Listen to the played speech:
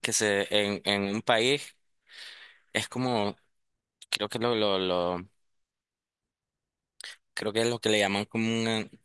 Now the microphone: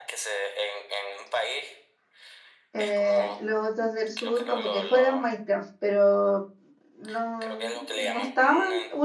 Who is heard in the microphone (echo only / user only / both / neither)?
both